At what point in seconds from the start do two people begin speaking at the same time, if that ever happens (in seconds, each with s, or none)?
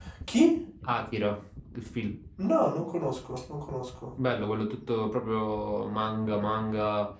none